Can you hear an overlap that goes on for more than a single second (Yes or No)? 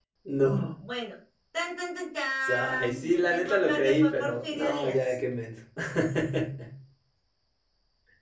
Yes